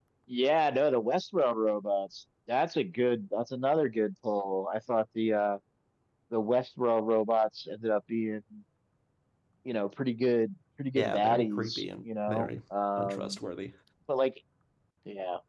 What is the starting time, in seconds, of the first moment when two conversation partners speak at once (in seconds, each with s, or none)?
11.0 s